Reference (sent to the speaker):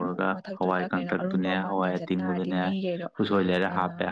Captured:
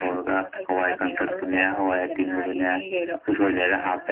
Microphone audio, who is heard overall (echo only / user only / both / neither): echo only